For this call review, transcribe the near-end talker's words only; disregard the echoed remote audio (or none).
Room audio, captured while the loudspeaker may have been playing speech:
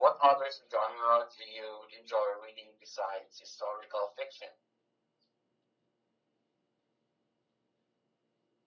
none